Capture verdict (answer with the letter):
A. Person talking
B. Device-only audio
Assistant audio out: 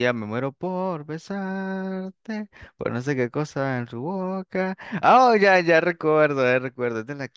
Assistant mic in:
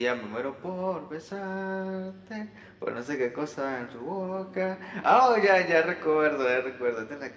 B